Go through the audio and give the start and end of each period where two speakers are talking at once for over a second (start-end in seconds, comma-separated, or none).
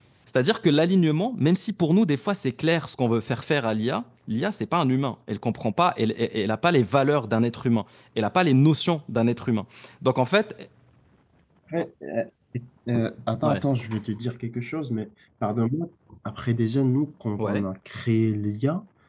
none